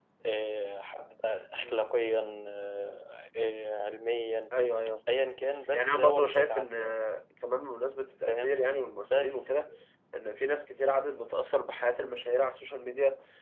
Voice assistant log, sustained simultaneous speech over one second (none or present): present